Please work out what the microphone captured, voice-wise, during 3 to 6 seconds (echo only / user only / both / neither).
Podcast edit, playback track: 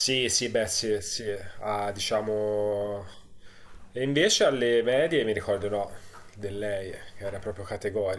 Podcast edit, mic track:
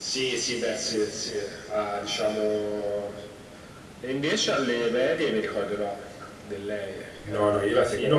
echo only